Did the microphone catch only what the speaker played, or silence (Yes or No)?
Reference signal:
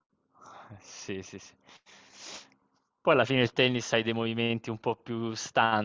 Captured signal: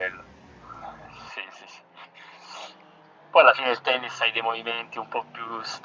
Yes